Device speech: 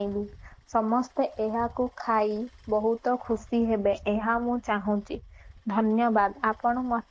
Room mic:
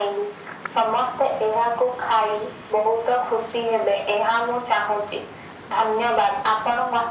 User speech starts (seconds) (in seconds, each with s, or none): none